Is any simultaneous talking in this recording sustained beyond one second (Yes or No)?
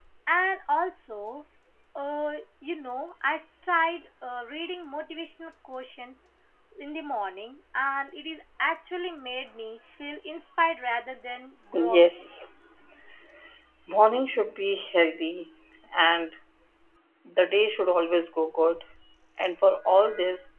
No